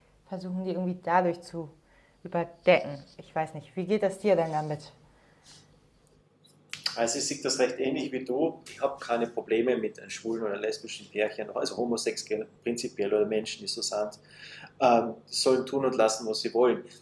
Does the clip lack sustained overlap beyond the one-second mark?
Yes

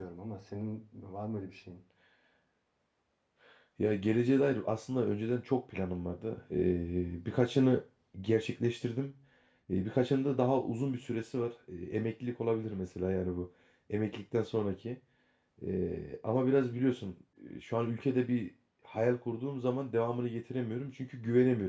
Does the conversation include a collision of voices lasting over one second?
No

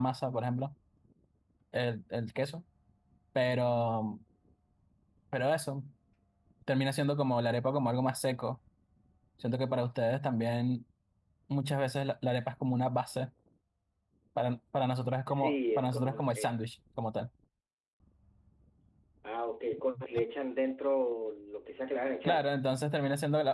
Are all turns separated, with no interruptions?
No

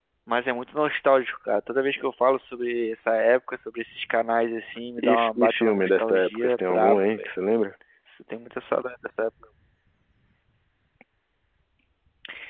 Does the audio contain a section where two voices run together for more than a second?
Yes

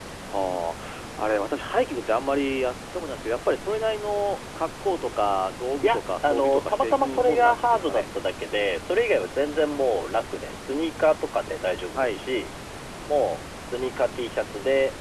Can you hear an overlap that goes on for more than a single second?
Yes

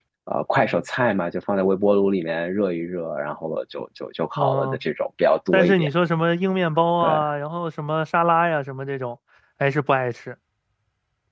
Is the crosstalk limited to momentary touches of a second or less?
Yes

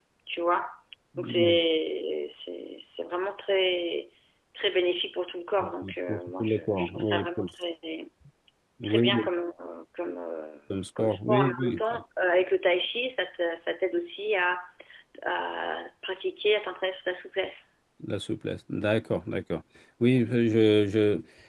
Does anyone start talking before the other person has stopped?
Yes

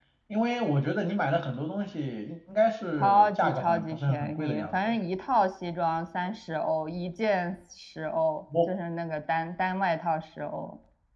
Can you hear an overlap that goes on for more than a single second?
Yes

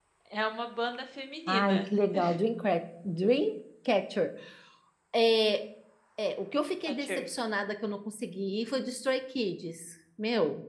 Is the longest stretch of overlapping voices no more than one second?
Yes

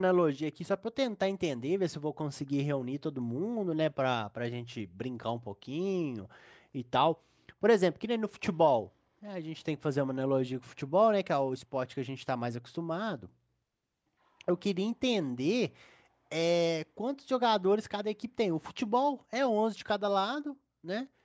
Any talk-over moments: No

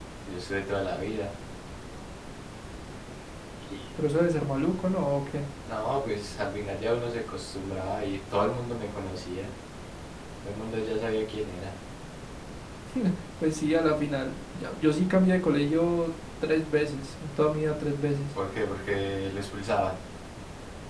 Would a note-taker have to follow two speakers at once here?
No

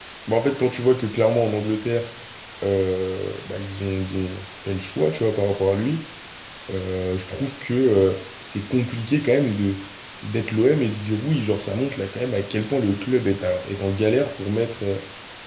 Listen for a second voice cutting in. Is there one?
No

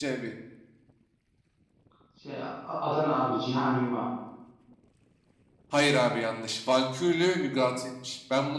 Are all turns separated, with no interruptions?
Yes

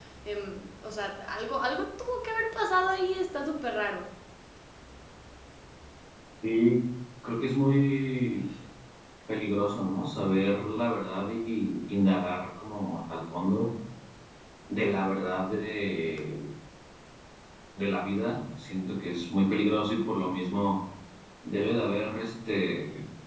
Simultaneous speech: No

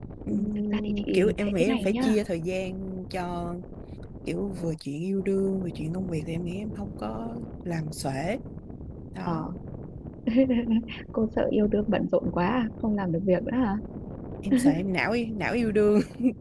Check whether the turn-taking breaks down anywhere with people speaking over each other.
Yes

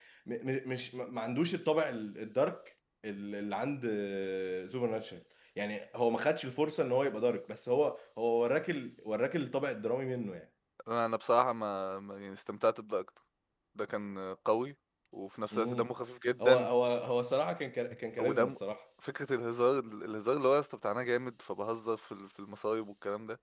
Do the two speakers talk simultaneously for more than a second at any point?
No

